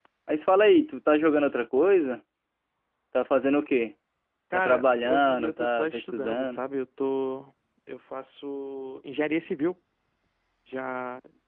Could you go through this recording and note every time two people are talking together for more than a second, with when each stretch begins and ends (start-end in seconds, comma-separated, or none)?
4.5-6.6